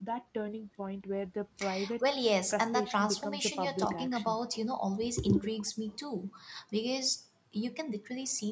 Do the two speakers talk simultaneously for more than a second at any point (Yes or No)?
Yes